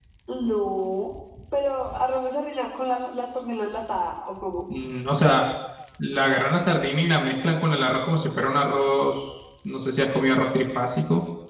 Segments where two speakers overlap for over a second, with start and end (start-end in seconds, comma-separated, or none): none